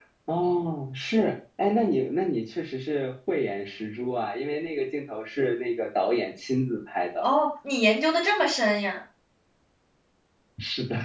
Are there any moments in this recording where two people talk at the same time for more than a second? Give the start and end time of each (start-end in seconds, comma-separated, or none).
none